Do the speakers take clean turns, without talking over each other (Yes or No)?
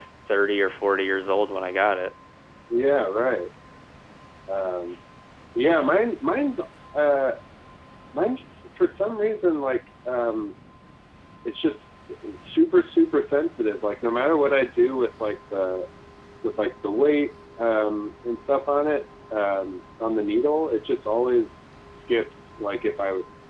Yes